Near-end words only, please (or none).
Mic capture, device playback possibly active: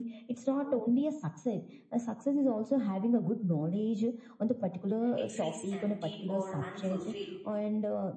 it feels empty or unfulfilled.